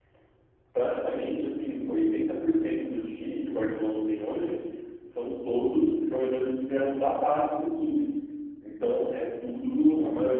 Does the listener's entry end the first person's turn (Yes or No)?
No